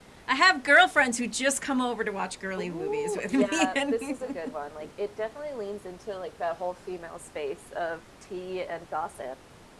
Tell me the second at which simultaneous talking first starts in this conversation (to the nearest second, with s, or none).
3 s